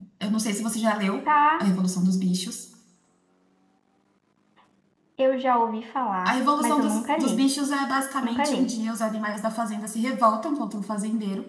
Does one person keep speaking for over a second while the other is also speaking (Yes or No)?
Yes